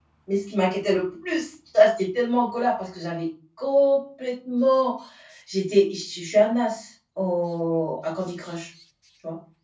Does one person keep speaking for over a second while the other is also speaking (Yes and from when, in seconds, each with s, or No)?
No